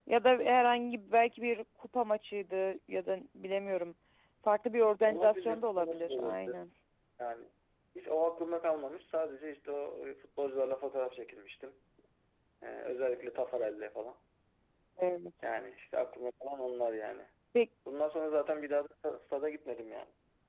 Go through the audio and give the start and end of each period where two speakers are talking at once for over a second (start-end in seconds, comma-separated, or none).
5.0-6.6